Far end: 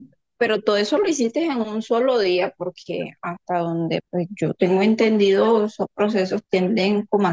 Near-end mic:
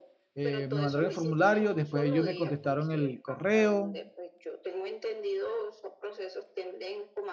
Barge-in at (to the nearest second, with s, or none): 0 s